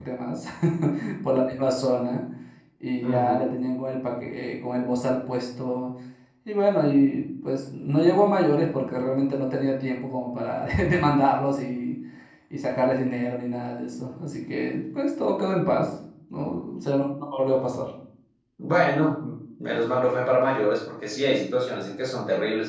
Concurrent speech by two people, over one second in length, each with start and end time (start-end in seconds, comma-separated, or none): none